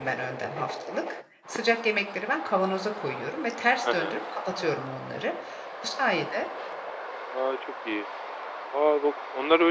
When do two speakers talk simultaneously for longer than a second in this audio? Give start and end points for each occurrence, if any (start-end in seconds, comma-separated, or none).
none